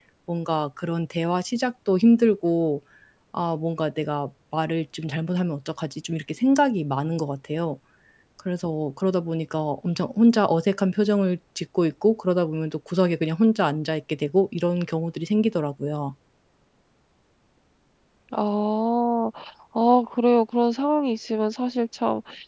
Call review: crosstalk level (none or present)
none